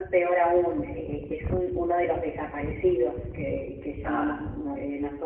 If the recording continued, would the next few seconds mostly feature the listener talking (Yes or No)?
No